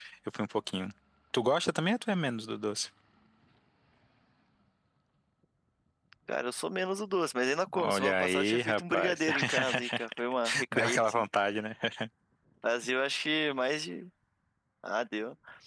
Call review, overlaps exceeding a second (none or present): present